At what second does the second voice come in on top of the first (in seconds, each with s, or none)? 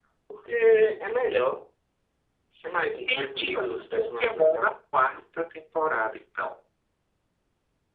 3.1 s